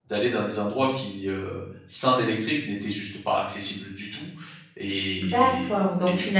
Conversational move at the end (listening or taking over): taking over